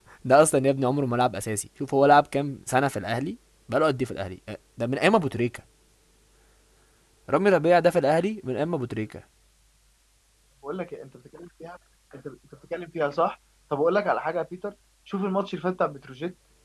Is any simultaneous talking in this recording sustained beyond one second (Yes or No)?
No